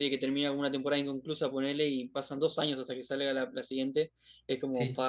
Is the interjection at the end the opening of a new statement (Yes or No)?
No